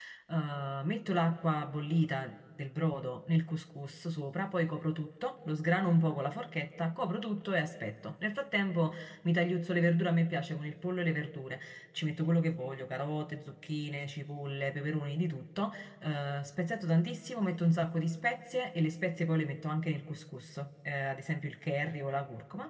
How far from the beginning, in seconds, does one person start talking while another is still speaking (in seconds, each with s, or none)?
none